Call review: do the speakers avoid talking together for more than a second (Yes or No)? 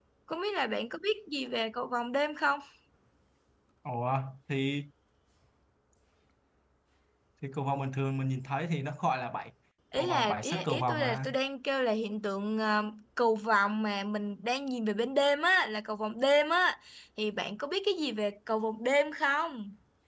No